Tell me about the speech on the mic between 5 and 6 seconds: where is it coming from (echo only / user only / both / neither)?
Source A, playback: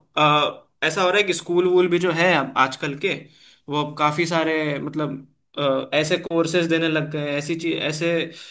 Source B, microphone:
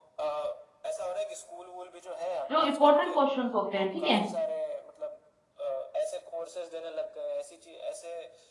echo only